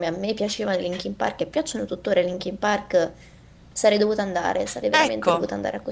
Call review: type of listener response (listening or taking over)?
taking over